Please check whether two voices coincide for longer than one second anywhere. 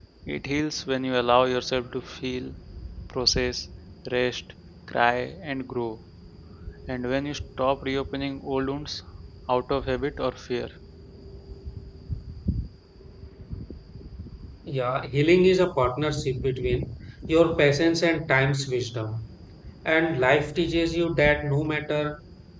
No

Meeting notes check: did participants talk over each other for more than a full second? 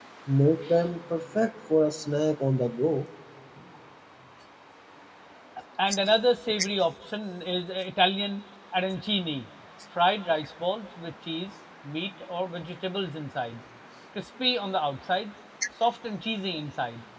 No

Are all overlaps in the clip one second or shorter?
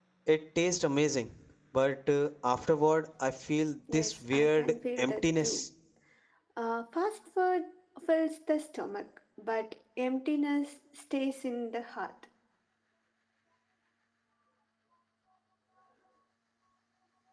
No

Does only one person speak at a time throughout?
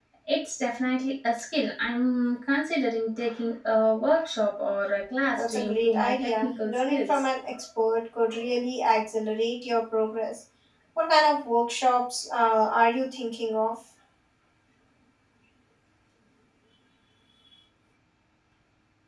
No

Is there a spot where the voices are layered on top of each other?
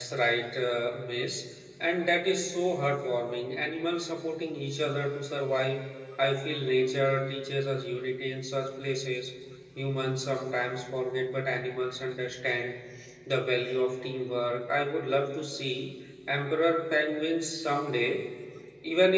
No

